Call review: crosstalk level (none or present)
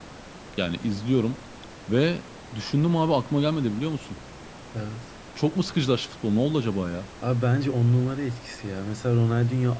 none